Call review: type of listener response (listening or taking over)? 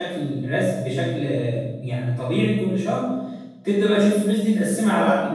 taking over